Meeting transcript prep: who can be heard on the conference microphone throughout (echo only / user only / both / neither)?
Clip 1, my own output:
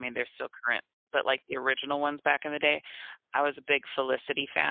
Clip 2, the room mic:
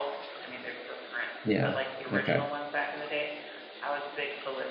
both